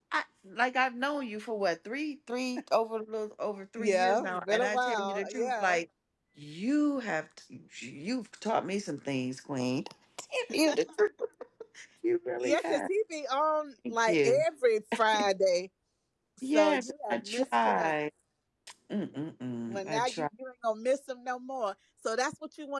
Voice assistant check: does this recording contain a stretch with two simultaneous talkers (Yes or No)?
Yes